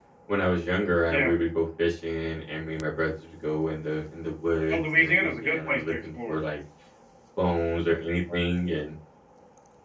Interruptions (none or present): present